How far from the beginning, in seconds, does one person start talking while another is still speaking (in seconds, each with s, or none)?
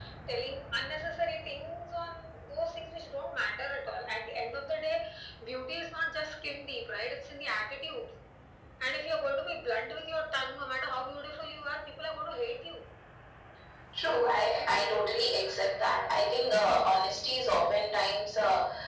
none